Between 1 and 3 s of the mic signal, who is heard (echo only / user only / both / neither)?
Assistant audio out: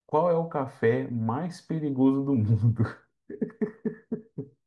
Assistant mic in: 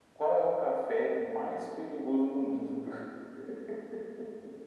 echo only